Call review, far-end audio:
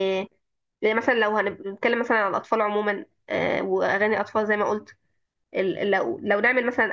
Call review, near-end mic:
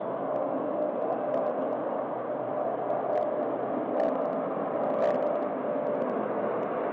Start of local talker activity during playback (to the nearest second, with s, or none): none